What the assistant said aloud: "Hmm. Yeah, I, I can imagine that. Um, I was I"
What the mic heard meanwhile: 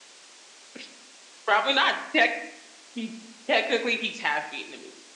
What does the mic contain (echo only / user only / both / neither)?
user only